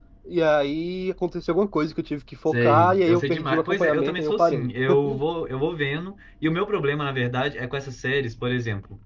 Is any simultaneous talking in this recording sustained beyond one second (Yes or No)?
Yes